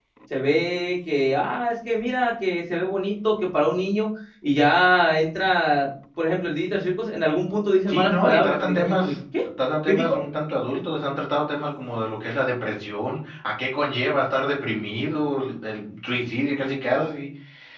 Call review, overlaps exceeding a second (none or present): present